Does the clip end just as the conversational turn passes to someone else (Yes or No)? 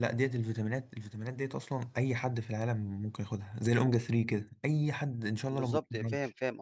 Yes